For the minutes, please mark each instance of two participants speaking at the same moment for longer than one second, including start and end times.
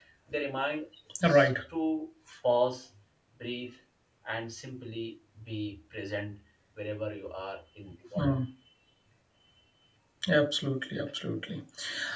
none

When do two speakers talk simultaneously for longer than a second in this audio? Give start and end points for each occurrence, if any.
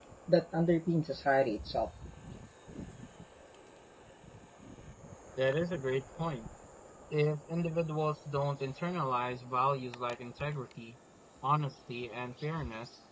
none

